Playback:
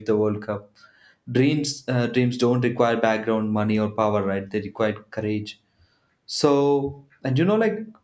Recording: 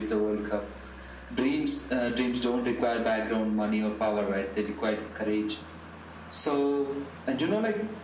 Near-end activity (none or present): none